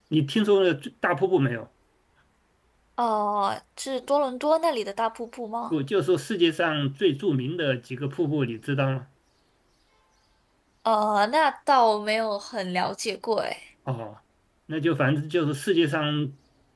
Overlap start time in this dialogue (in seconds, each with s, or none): none